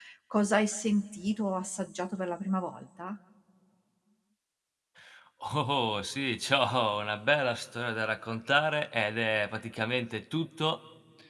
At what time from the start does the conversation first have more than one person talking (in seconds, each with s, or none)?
none